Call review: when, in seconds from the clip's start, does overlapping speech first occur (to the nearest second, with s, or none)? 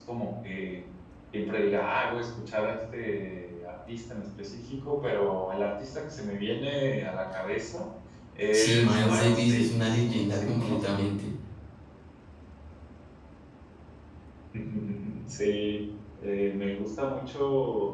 9 s